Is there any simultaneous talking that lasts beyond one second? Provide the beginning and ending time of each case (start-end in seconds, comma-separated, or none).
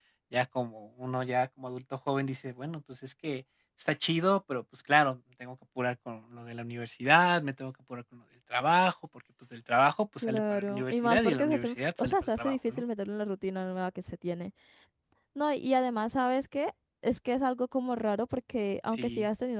10.2-12.8